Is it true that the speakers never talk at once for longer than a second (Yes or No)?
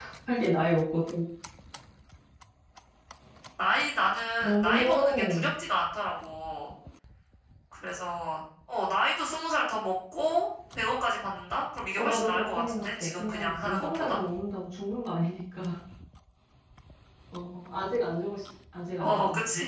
No